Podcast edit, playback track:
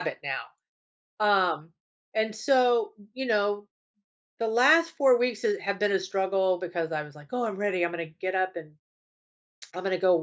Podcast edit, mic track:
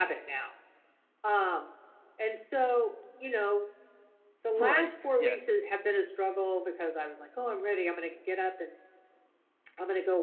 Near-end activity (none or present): present